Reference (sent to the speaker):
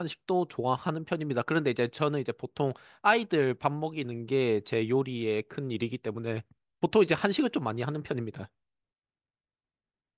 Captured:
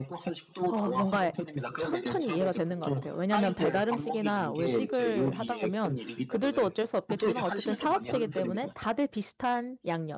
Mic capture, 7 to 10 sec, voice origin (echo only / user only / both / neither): both